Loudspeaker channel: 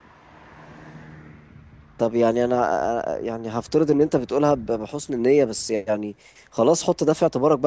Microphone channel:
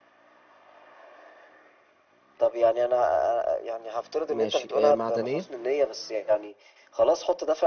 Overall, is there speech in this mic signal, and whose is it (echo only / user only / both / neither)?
both